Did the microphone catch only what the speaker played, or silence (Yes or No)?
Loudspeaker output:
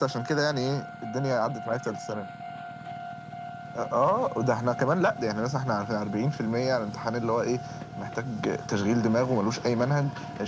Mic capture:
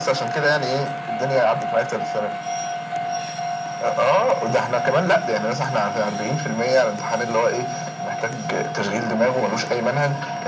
Yes